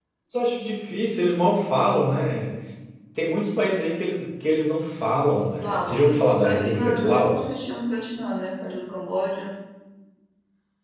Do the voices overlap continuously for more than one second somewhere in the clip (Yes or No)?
Yes